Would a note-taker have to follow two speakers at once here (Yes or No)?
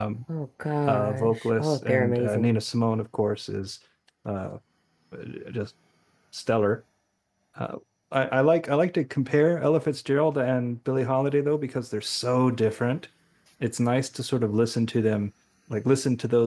Yes